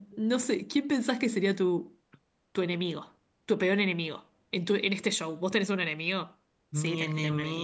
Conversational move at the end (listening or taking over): taking over